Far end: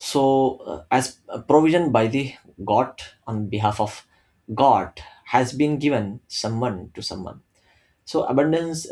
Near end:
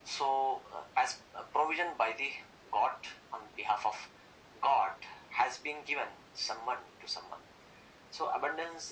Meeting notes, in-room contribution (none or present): none